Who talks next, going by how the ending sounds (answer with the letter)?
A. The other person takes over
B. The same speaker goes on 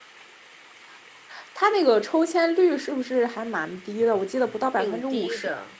A